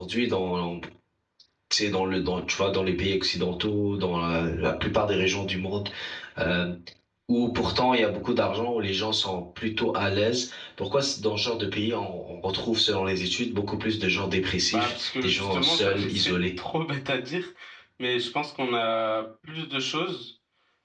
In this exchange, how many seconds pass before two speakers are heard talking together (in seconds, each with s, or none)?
14.7 s